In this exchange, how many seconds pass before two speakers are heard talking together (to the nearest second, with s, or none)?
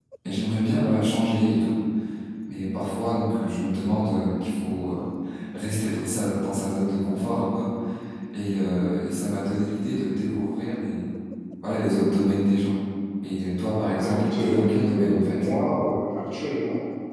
14 s